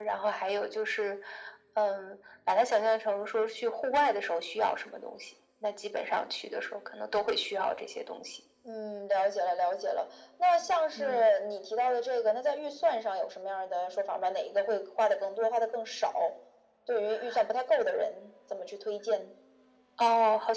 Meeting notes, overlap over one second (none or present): none